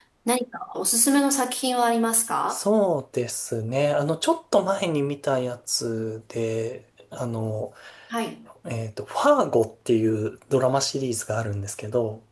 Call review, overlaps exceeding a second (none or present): none